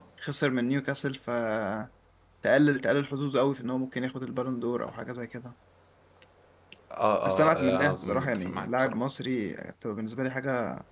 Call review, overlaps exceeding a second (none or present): present